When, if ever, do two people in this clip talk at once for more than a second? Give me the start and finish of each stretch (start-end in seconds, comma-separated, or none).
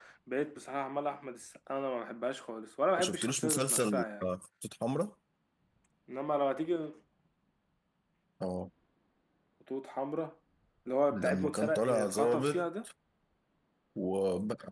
3.0-4.2, 11.1-12.7